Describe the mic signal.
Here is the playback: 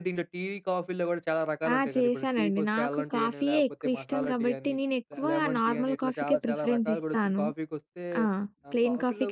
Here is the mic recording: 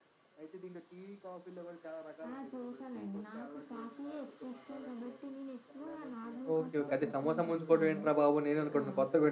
both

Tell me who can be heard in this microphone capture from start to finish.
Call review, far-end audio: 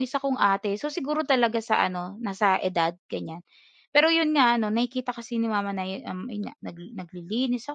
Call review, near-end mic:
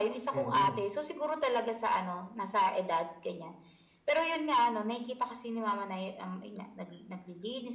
both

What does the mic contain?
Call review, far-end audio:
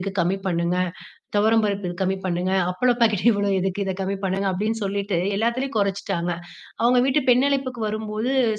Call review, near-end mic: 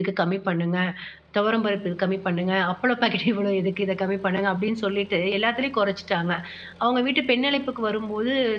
echo only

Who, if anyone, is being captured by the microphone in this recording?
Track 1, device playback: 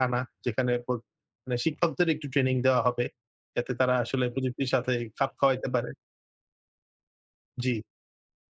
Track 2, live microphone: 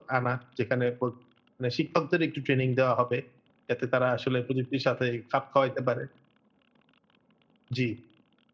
echo only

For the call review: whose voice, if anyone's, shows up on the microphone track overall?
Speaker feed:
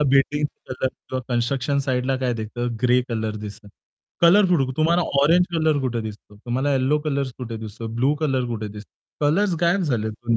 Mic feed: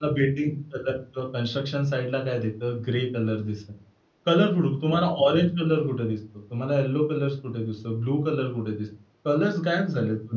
echo only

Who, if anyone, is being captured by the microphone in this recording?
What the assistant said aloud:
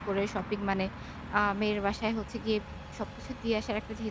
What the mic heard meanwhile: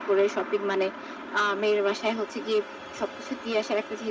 echo only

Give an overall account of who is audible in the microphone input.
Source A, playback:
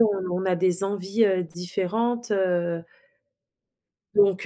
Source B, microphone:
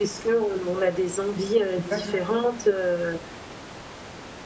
both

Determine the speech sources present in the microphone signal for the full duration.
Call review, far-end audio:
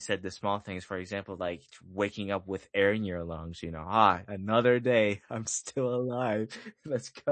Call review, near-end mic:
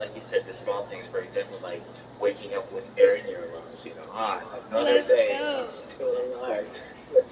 both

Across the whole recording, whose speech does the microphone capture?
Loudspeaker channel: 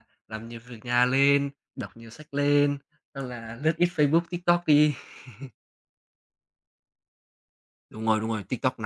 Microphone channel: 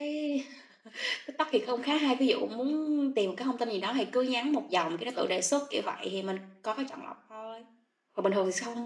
user only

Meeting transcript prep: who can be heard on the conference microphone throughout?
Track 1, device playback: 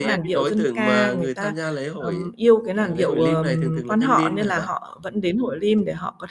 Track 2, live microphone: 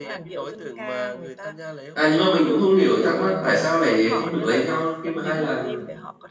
both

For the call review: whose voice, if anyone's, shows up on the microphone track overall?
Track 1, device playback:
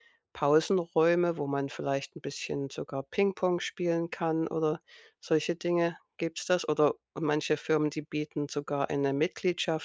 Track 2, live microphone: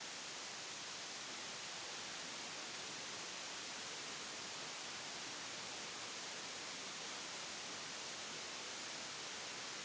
neither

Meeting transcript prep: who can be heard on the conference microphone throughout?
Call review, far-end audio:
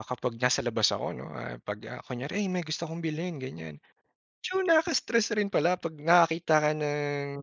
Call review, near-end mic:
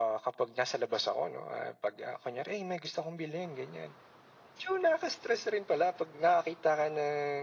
echo only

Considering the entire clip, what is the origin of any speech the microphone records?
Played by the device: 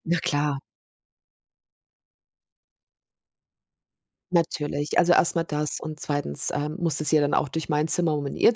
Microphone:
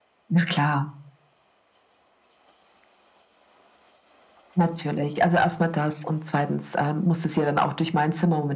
echo only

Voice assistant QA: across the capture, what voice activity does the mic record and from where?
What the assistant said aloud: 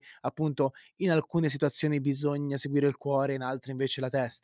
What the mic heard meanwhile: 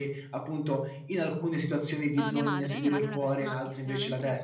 both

